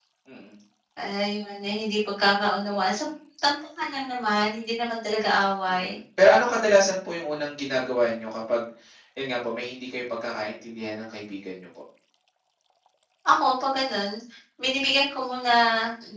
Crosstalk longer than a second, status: none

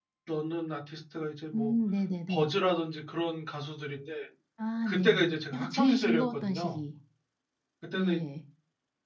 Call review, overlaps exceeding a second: present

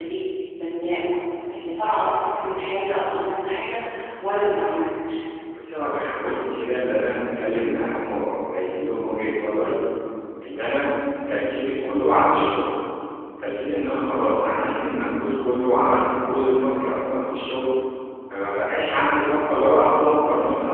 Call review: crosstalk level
none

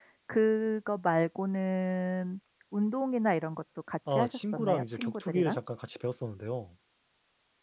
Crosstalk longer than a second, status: present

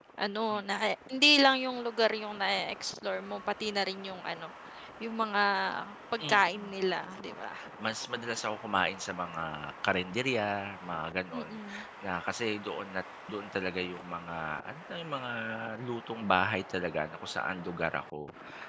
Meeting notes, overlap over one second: none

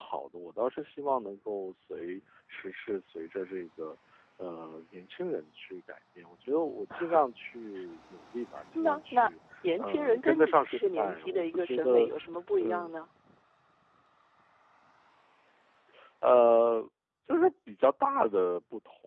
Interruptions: present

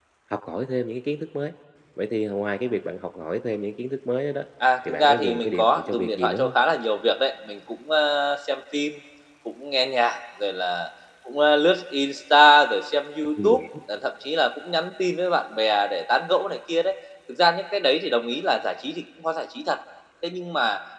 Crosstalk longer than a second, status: present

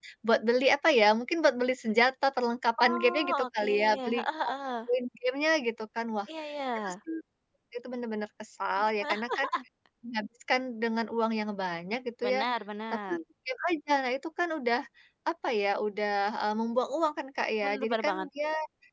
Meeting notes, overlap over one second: present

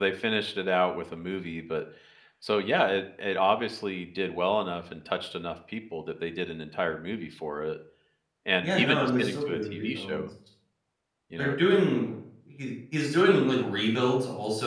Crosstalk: present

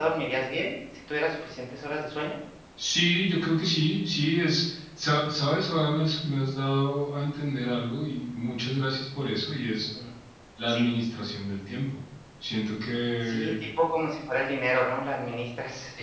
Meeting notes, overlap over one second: none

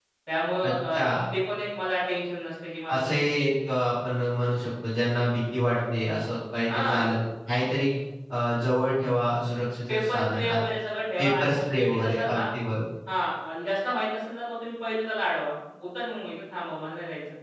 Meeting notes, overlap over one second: present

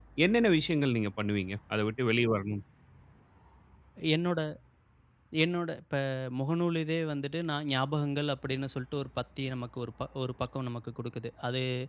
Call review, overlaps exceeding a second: none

